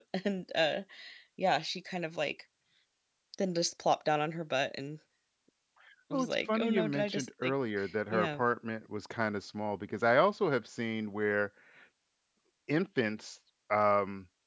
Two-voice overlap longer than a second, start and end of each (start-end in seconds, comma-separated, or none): 6.1-7.5